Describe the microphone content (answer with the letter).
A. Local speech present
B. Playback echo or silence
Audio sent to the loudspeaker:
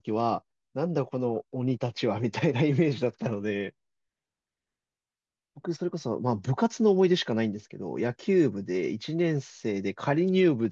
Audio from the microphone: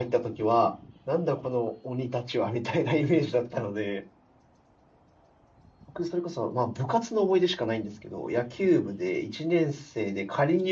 B